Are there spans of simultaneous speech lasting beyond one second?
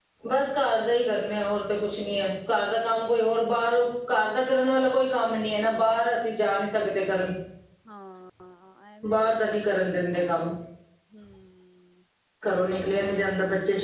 No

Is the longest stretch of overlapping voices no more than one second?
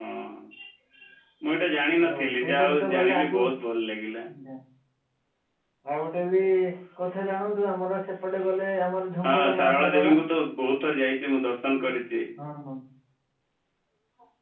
No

